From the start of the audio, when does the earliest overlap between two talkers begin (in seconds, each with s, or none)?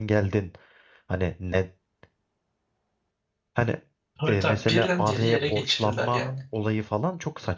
4.3 s